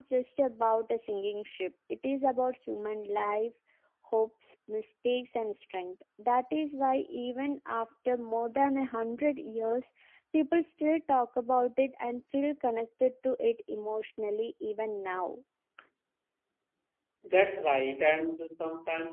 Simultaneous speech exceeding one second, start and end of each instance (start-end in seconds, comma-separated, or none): none